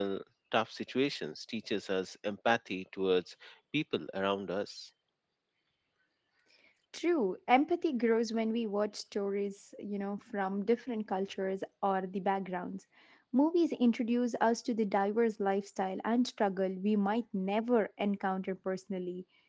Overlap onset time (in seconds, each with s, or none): none